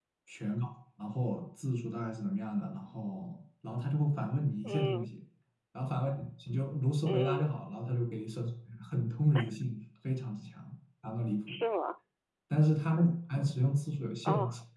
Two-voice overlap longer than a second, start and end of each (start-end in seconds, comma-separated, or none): none